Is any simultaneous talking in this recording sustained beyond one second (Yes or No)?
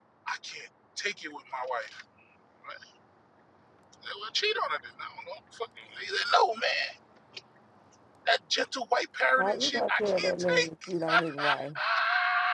Yes